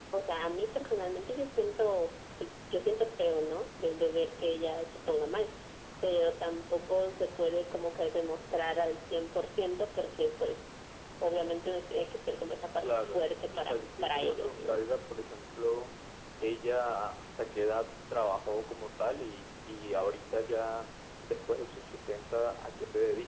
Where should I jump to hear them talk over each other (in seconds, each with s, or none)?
12.8 s